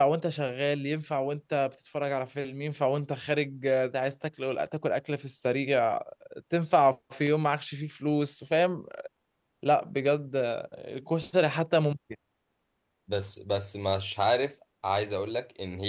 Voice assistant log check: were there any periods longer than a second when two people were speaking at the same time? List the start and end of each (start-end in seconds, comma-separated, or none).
none